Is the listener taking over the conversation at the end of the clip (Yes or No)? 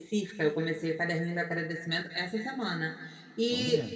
No